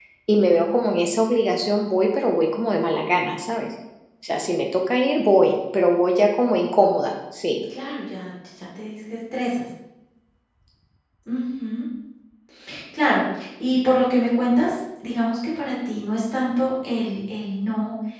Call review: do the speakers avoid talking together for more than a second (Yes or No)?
Yes